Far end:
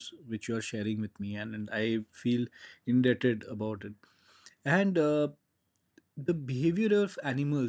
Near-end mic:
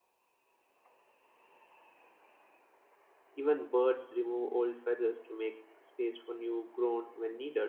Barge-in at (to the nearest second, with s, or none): 3 s